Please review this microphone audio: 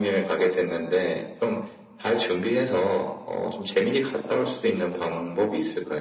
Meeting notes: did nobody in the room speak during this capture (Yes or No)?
Yes